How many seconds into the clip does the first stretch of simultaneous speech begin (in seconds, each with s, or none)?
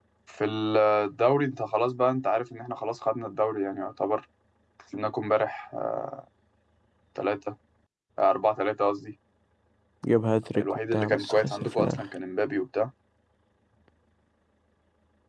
10.6 s